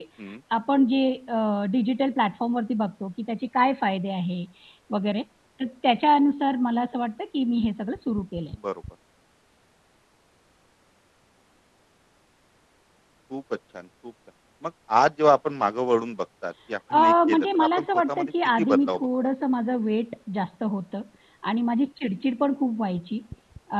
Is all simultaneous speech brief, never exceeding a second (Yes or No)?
No